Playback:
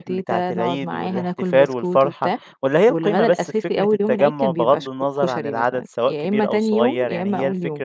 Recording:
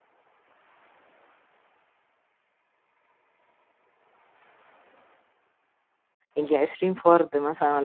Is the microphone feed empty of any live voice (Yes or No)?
No